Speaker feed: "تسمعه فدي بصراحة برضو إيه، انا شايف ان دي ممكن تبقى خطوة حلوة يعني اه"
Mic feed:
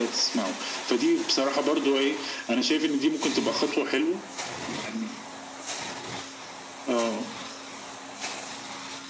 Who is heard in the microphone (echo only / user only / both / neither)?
echo only